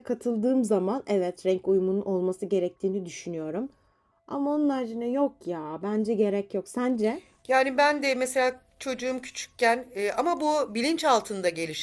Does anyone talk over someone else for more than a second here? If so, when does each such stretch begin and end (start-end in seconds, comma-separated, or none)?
none